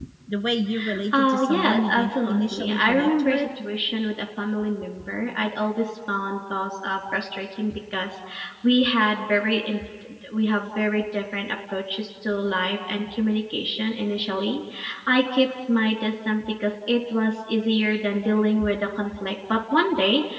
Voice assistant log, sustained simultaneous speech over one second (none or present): present